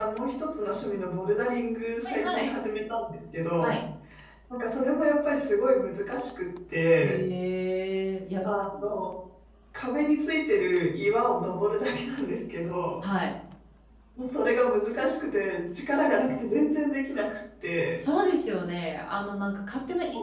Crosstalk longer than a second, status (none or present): none